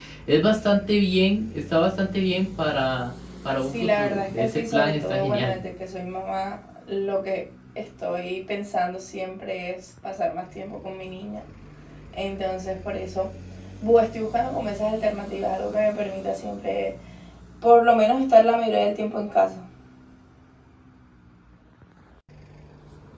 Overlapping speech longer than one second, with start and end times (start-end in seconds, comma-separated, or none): 3.6-5.6